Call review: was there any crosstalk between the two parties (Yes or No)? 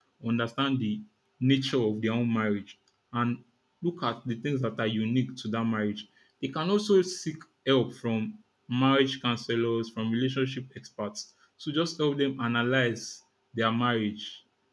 No